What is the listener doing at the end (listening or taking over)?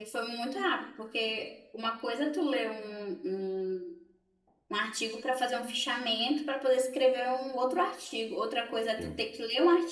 listening